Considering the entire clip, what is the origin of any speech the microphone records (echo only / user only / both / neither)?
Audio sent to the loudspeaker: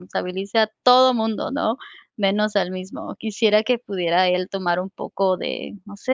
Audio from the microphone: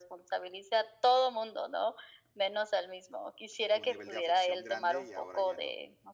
both